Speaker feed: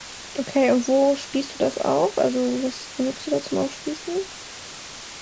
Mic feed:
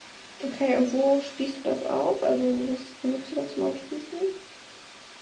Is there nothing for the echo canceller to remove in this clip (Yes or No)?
No